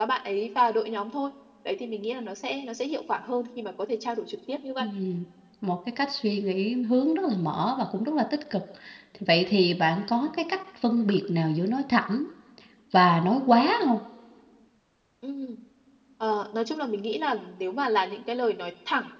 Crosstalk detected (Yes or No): No